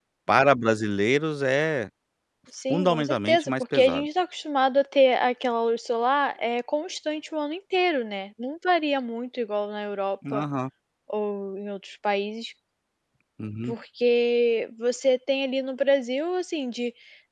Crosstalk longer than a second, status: present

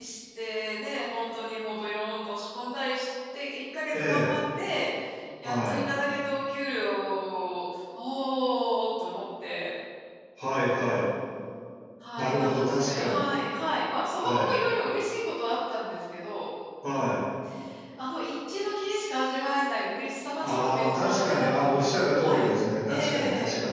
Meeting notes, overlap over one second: present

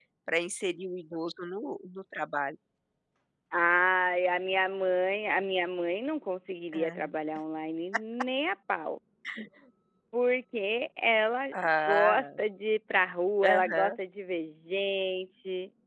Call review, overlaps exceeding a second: none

